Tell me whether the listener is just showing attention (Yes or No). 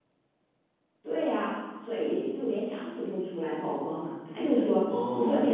Yes